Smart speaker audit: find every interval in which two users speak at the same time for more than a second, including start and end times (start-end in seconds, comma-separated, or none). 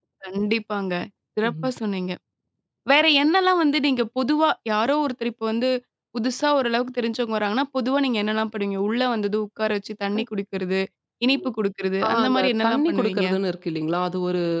12.1-13.3